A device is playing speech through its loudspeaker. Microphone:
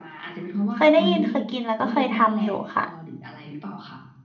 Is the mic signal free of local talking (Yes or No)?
No